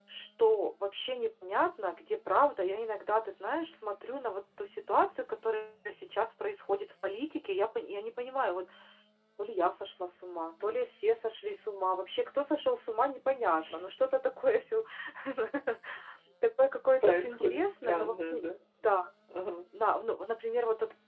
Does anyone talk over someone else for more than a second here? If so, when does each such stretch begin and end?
17.0-18.5

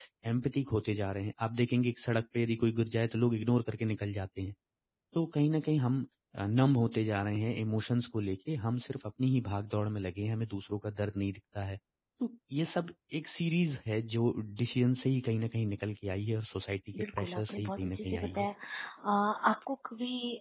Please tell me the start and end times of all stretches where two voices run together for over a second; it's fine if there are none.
17.0-18.5

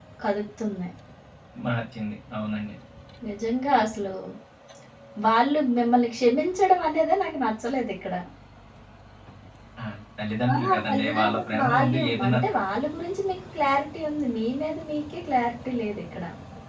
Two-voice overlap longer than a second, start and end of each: 10.5-12.4

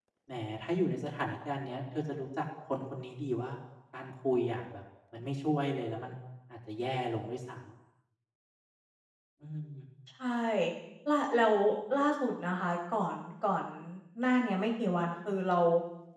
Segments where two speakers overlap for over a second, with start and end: none

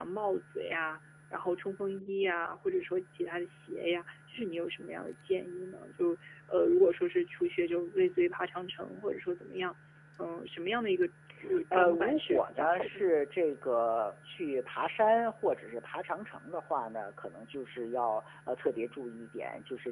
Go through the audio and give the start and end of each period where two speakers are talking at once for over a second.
11.7-13.2

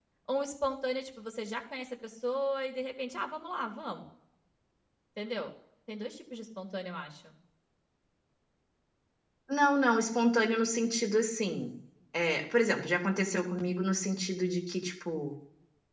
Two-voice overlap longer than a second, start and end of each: none

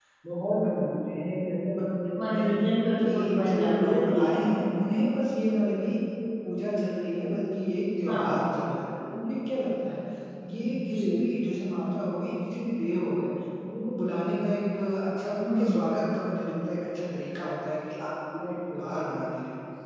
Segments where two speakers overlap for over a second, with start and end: 3.0-4.2

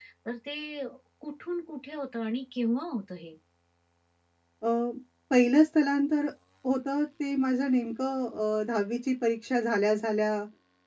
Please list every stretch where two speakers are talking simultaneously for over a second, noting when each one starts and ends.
none

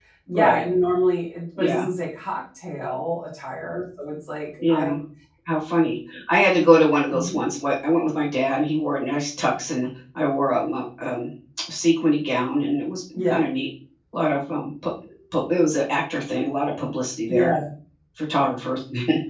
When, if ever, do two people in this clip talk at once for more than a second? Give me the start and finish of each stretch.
none

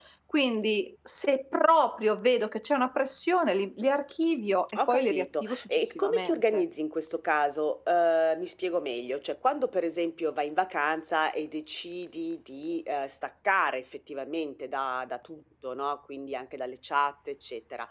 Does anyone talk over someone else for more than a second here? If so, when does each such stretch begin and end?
4.9-6.6

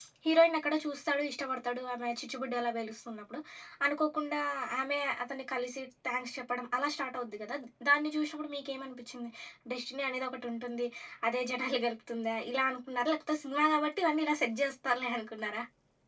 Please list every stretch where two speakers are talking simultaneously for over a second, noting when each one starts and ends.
none

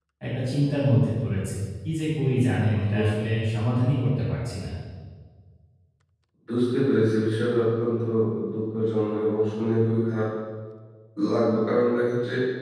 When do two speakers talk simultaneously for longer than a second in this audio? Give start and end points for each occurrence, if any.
none

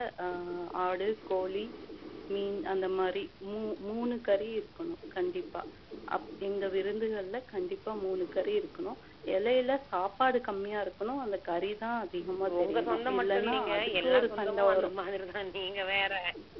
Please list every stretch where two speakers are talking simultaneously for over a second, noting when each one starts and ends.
12.6-14.9

